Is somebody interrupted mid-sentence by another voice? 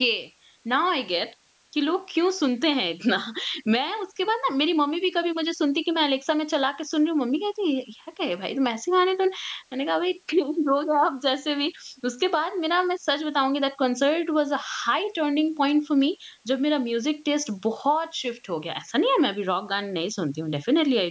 No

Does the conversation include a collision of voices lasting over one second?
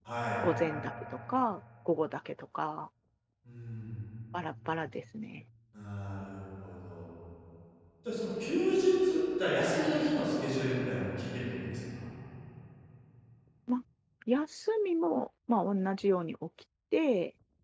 No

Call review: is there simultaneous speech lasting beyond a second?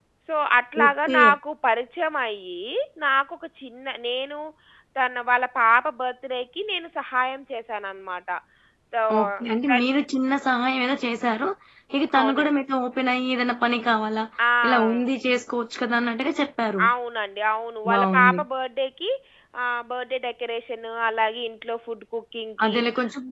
No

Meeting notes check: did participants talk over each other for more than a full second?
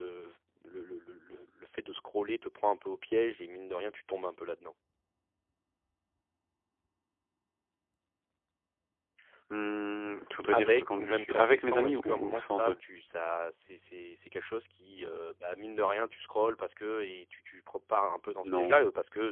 Yes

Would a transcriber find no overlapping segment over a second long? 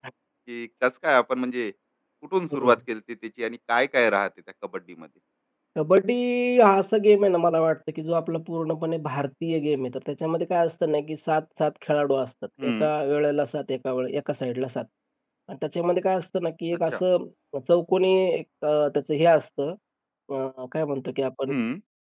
Yes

